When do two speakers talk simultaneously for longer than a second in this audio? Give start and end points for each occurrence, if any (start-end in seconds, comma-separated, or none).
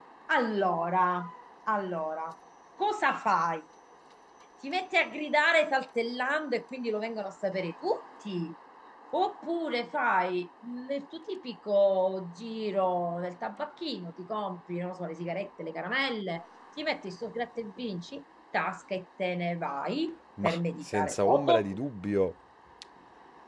20.4-21.7